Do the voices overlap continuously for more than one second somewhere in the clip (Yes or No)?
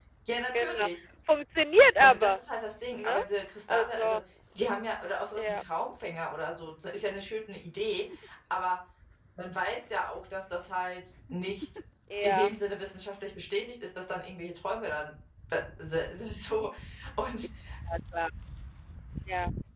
No